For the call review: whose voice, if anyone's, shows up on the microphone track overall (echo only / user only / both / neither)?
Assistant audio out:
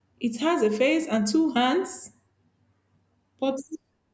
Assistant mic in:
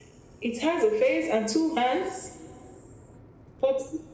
echo only